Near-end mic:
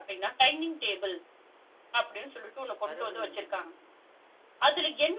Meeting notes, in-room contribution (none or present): present